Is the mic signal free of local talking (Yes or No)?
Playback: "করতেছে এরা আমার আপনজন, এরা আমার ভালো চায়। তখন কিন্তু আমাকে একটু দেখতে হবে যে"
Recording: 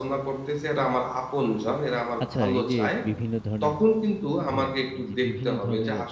No